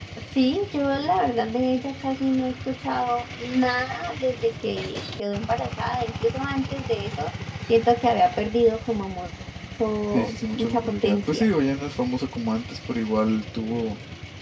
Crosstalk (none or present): present